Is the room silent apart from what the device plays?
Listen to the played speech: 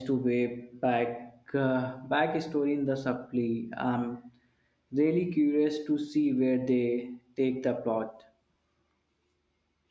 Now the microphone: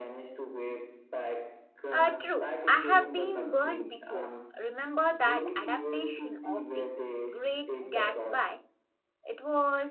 No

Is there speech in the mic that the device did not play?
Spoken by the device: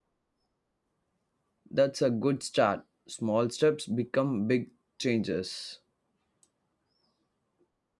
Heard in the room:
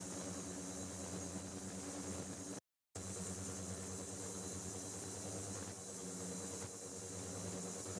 No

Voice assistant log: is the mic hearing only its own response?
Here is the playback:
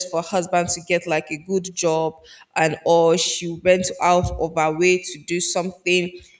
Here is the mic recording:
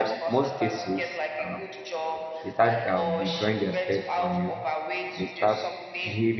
No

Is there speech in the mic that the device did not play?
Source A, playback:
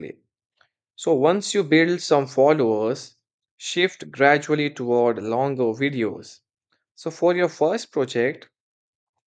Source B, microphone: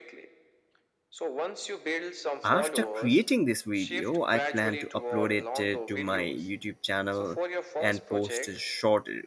Yes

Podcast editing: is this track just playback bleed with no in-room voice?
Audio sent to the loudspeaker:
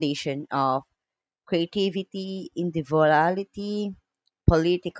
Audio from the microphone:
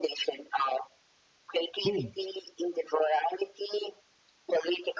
No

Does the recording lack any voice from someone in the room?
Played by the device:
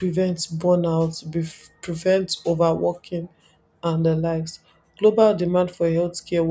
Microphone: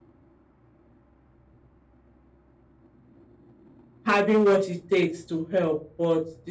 No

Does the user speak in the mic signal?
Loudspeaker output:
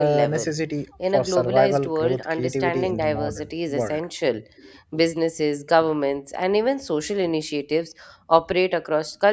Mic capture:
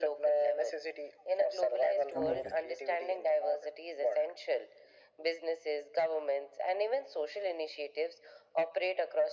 Yes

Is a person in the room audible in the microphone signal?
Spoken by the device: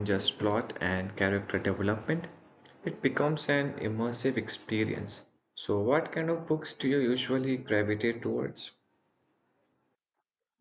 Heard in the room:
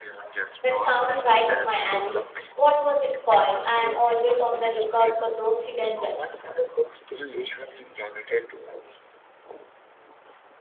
Yes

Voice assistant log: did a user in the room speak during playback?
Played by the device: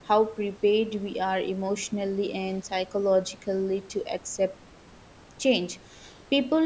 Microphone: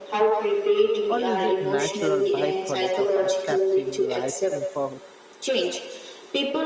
Yes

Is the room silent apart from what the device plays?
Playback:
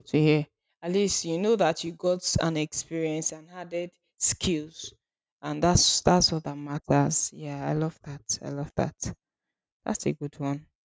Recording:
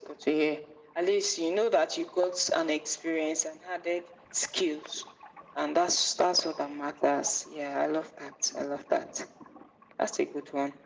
Yes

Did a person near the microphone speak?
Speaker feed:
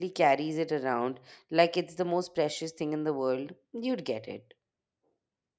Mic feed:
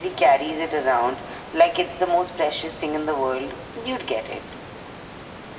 No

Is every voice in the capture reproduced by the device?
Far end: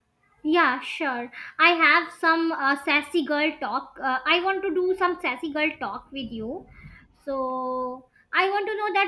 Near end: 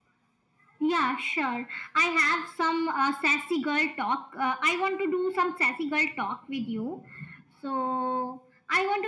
Yes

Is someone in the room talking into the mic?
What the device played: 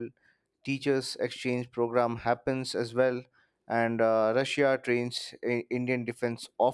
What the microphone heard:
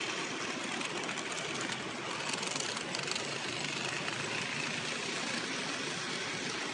No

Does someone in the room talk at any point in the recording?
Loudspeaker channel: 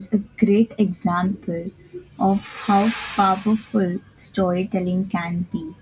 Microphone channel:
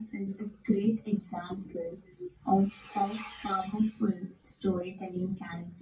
No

